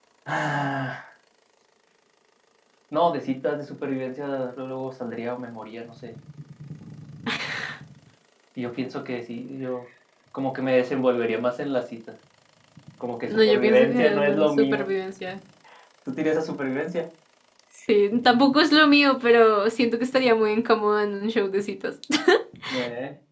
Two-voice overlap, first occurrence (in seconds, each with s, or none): 13.3 s